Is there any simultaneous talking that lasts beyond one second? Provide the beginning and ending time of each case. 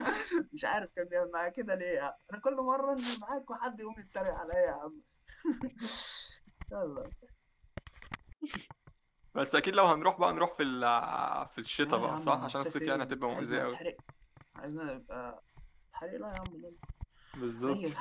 11.8-13.8

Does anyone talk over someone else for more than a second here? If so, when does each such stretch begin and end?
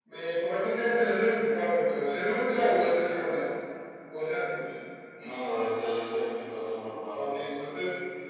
none

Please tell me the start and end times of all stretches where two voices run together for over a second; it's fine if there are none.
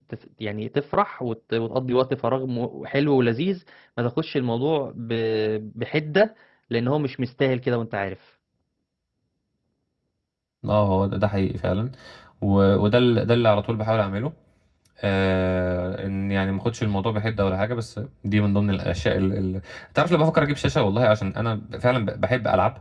none

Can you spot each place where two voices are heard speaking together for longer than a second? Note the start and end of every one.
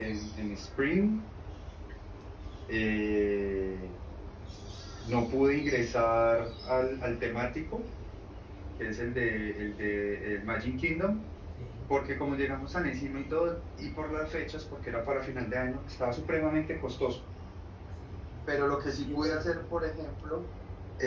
18.5-19.7

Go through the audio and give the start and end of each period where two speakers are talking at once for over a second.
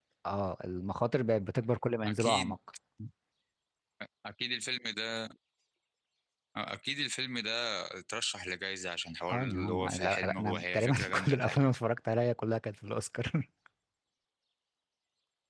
9.3-11.6

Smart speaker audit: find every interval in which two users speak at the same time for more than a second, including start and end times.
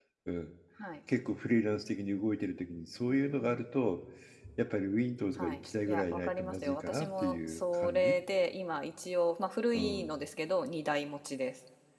5.4-8.2

